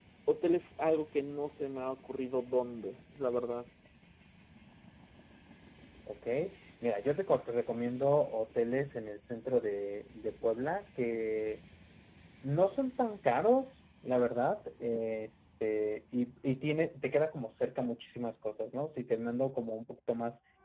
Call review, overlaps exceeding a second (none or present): none